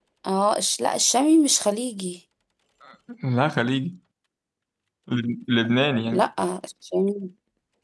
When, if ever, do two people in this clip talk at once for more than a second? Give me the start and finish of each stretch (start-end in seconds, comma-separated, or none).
none